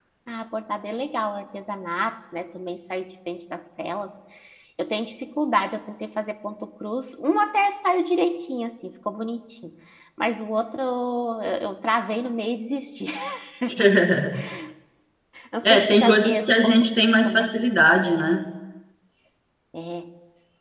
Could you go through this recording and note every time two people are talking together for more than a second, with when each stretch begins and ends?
15.6-17.5

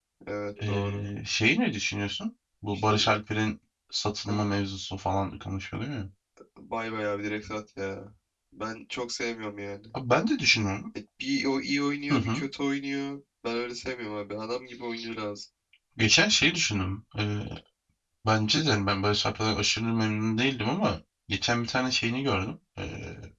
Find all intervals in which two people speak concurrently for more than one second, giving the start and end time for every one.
none

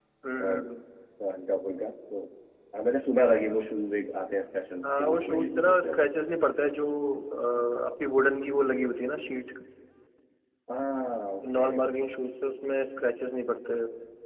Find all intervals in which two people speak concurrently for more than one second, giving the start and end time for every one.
4.8-6.1

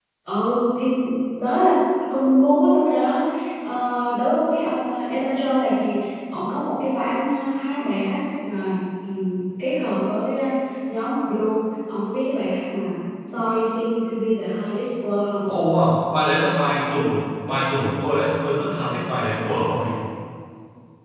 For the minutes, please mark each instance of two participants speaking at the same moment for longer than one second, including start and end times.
none

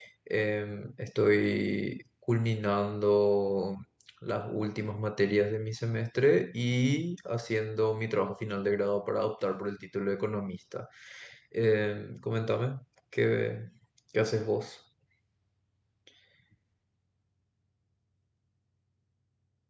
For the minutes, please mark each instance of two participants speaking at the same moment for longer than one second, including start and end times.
none

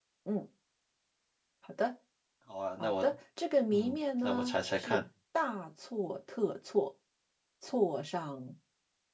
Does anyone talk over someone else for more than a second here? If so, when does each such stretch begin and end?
3.7-5.0

